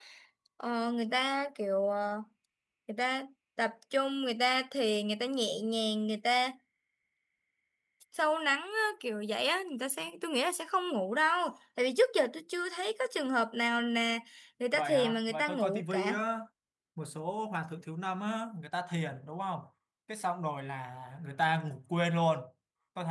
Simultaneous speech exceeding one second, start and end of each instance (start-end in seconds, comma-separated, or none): 14.7-16.2